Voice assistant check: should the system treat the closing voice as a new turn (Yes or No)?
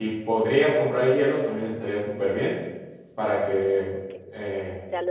Yes